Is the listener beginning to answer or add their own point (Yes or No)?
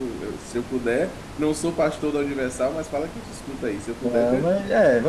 Yes